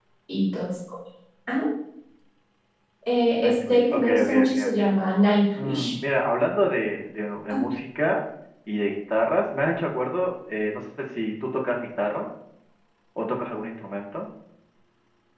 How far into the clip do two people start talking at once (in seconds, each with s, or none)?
3.3 s